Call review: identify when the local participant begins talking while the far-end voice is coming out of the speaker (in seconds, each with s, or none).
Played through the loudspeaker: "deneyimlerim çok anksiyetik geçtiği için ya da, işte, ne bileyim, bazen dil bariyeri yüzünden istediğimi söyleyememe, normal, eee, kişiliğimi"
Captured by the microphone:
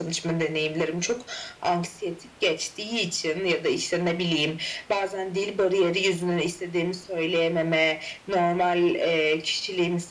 none